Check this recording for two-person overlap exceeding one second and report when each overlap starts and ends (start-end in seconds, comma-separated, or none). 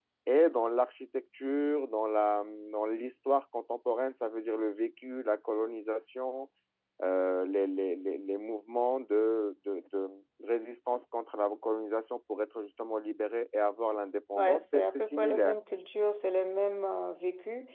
14.3-15.6